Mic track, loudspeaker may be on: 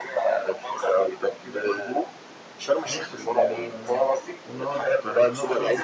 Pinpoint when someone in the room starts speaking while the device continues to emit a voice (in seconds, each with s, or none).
2.9 s